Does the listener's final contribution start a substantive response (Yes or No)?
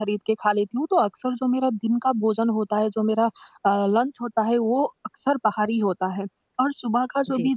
No